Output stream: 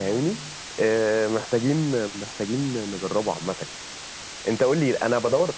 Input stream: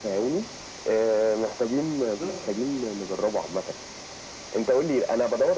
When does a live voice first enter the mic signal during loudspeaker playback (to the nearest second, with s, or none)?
2 s